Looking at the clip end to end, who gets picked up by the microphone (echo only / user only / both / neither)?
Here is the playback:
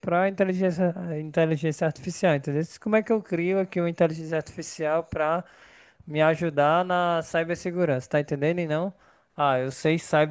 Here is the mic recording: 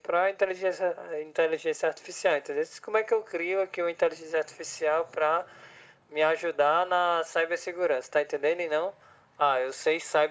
echo only